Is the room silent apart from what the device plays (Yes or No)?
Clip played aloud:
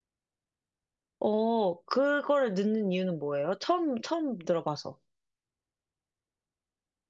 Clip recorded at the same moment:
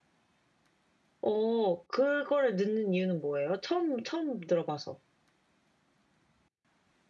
Yes